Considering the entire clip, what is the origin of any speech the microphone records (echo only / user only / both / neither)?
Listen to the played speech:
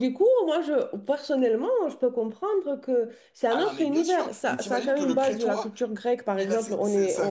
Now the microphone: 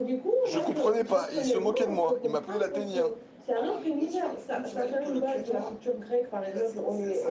both